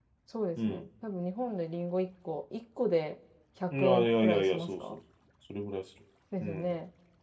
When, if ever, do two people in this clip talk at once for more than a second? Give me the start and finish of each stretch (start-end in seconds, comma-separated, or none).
3.8-5.0